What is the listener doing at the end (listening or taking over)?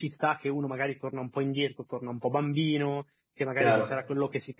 listening